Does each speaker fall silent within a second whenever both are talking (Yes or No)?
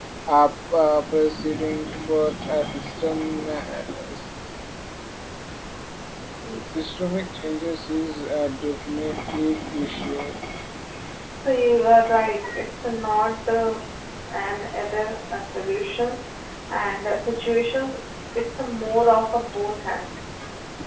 Yes